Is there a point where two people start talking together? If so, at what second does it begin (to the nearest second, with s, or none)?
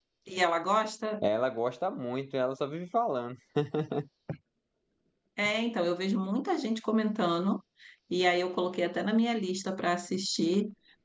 none